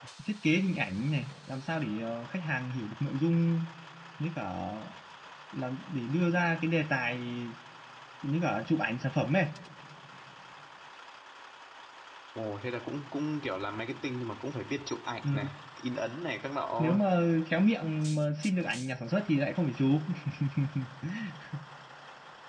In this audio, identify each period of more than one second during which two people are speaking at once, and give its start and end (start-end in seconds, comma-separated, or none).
none